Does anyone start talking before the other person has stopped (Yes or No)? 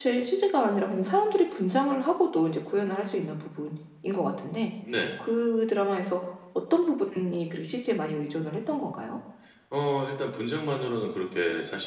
No